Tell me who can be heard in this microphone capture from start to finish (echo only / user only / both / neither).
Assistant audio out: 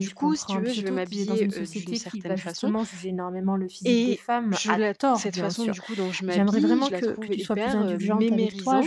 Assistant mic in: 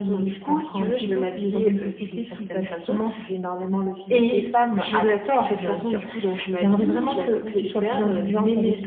echo only